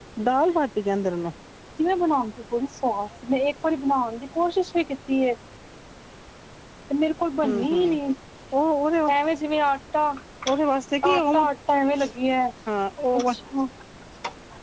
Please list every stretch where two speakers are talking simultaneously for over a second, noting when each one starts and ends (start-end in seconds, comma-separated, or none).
none